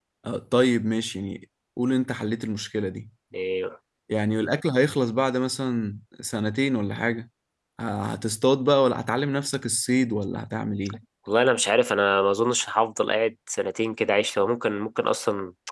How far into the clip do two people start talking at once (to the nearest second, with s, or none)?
none